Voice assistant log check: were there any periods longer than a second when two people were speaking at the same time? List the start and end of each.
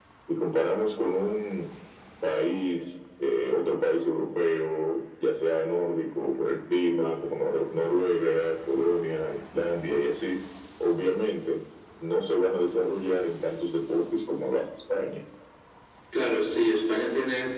none

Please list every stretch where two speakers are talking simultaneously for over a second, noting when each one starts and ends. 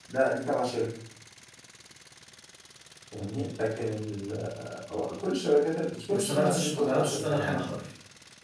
6.1-7.7

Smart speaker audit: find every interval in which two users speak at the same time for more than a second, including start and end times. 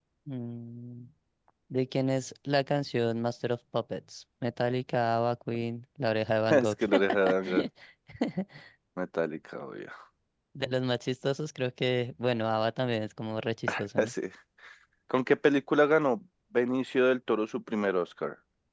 none

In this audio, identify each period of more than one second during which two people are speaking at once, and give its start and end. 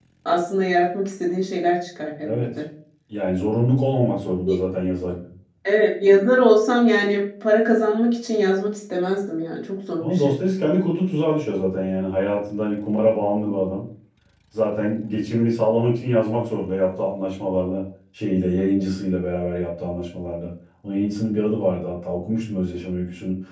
none

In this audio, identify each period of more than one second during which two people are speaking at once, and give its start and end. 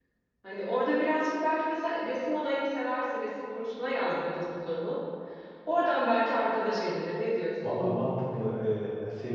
none

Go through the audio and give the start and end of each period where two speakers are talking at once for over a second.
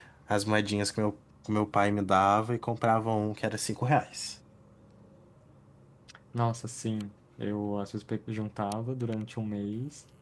none

